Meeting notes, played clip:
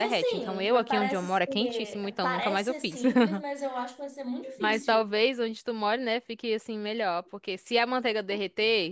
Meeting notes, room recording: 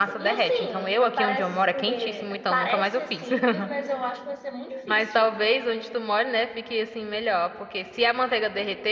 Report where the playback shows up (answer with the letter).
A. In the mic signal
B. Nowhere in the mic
A